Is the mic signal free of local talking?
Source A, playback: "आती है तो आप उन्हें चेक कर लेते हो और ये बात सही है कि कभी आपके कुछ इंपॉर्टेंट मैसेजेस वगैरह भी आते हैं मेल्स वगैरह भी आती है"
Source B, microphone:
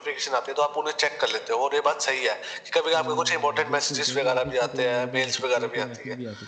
No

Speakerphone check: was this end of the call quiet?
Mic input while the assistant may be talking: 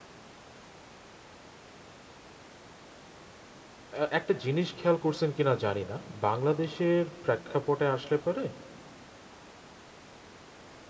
No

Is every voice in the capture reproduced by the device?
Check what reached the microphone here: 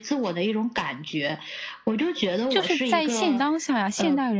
No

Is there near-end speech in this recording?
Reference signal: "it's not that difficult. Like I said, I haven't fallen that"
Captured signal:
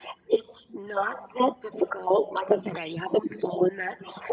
No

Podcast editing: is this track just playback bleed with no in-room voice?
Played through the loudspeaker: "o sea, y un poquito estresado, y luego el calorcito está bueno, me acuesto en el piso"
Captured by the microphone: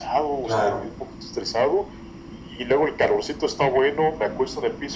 No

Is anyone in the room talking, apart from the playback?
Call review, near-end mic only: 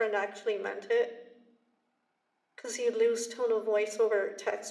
No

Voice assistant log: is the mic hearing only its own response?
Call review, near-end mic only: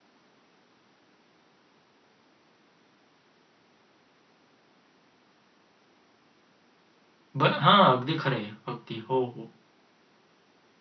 No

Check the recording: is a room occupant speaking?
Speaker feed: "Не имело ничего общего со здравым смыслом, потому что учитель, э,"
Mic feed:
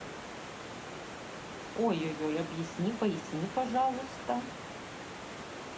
Yes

